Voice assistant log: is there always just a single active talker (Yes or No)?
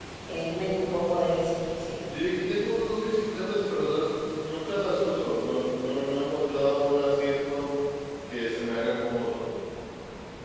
Yes